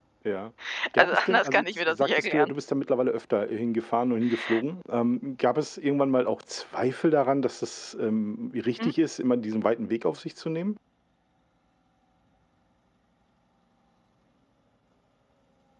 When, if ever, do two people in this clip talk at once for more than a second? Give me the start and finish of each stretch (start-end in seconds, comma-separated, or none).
1.0-2.5